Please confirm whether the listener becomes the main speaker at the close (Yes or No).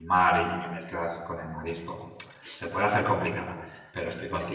No